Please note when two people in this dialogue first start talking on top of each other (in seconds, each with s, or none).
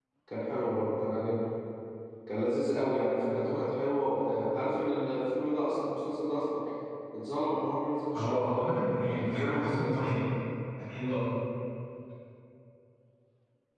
8.1 s